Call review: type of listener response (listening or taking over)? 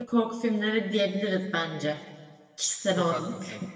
taking over